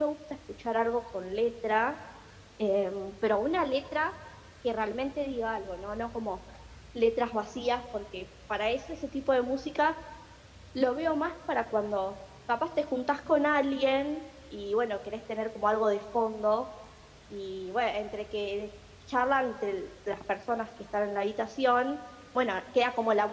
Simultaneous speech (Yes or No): No